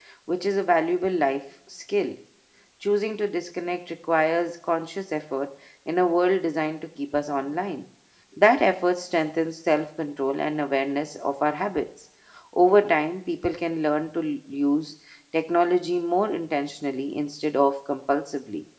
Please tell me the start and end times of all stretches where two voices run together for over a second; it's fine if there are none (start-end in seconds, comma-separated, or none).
none